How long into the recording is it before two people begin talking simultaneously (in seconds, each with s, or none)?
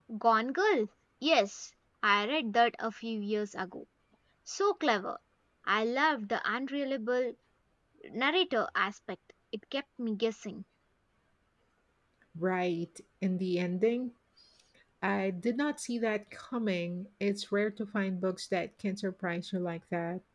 none